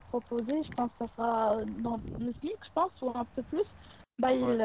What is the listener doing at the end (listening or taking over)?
listening